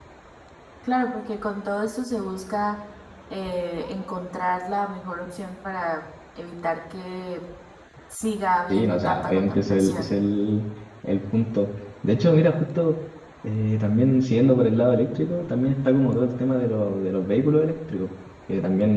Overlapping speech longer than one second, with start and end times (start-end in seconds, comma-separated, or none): 8.7-10.1